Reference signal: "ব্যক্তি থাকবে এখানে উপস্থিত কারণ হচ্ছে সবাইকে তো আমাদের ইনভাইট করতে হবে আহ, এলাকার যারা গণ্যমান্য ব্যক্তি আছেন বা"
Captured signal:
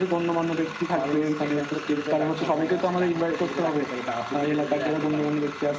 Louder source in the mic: echo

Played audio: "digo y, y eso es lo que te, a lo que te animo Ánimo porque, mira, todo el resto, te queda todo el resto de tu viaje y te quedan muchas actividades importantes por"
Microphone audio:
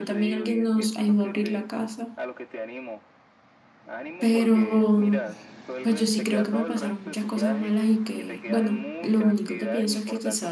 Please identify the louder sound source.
user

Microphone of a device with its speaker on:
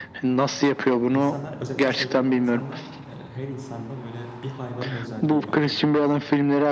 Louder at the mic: echo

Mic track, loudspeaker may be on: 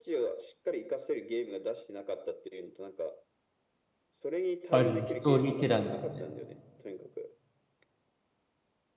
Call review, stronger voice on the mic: user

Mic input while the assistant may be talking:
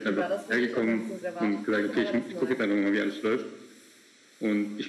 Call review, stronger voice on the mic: echo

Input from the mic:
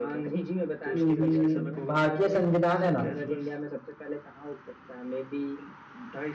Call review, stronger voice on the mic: user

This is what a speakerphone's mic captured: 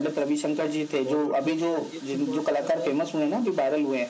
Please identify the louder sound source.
echo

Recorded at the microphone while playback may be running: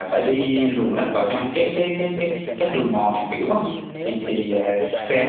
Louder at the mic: user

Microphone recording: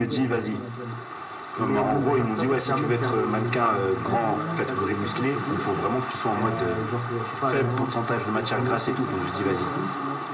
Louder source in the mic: echo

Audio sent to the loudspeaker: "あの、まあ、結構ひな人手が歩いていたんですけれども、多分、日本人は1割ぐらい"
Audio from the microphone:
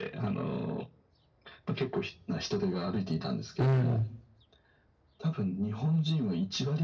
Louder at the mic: user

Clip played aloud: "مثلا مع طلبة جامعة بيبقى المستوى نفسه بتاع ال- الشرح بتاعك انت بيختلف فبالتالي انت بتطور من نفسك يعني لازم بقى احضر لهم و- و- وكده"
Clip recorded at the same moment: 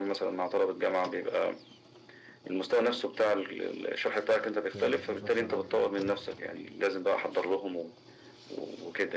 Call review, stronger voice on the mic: echo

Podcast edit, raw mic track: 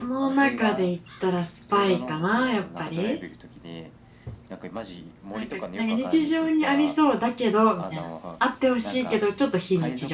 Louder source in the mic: user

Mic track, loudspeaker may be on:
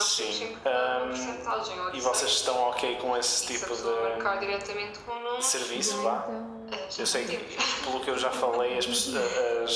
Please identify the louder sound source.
echo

